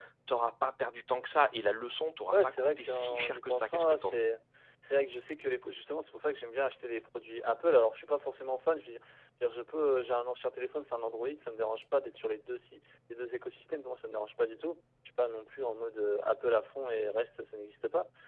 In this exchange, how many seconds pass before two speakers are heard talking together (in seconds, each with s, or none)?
2.3 s